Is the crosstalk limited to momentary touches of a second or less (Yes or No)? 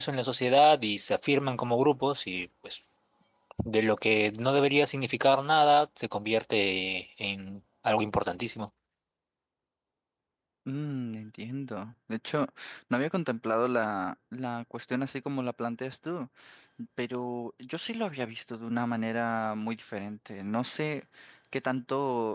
Yes